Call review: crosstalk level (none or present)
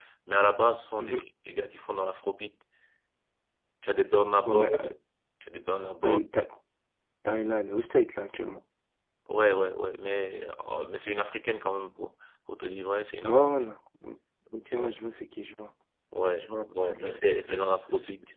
present